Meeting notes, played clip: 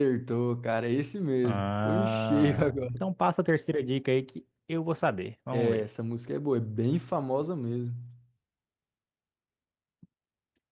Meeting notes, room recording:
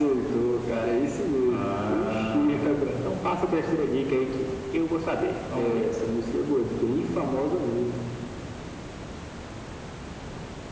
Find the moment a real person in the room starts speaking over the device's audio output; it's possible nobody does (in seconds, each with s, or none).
none